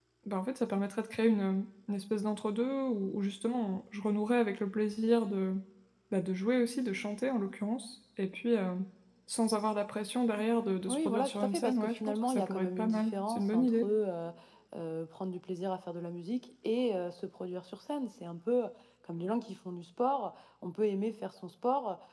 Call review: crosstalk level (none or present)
present